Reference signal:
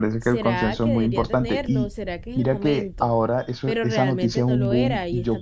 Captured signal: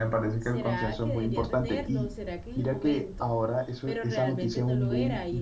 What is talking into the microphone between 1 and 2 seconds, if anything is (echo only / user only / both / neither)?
echo only